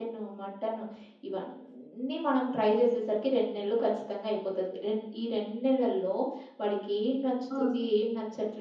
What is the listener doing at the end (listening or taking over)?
listening